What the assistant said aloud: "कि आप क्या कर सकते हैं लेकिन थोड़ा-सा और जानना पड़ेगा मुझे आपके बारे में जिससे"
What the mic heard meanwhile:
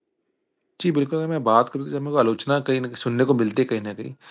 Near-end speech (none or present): present